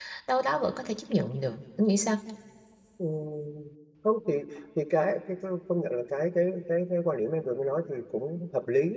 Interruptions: none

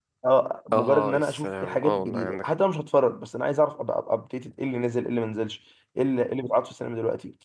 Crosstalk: present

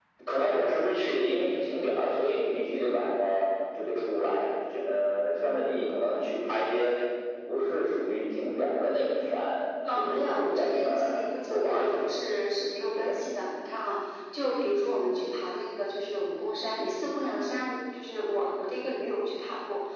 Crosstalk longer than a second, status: present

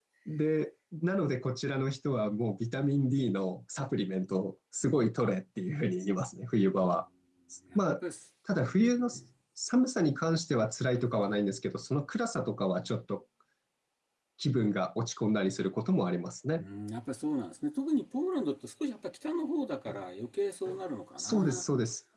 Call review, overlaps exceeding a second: none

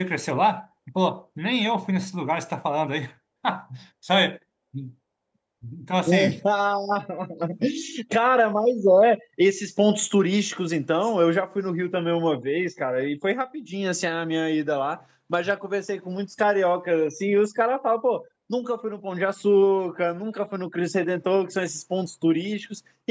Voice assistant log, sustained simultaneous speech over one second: none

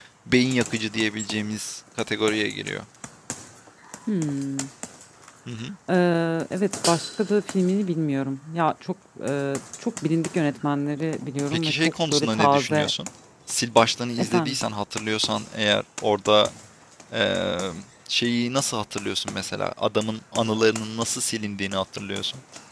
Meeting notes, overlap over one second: present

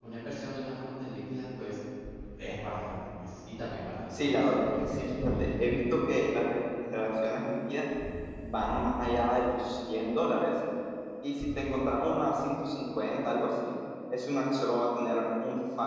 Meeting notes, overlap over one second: present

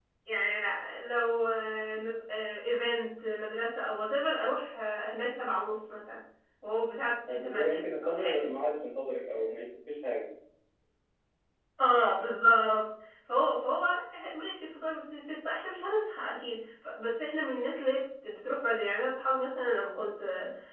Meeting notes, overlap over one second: present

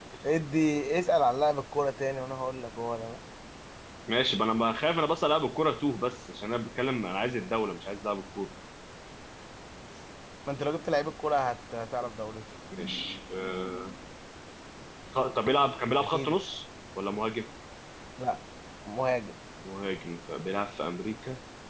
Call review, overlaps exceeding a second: none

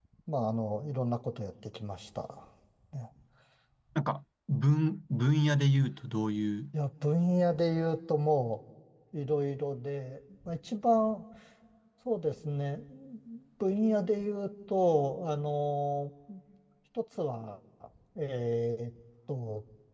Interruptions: none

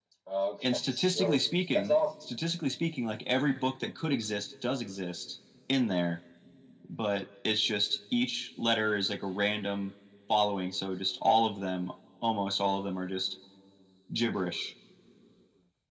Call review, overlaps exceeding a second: present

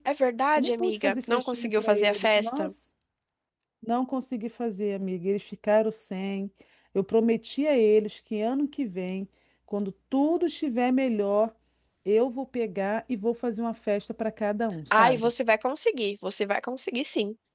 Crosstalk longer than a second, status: present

